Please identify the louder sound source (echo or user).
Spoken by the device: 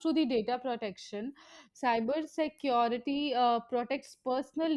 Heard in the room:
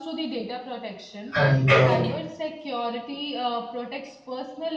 user